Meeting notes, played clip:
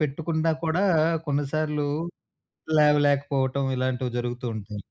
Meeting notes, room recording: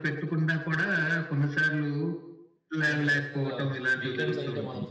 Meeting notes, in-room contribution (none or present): present